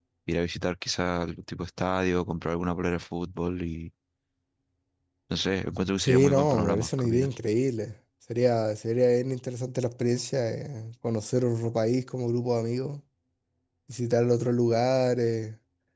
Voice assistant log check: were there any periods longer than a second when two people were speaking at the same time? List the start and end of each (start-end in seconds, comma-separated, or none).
6.0-7.3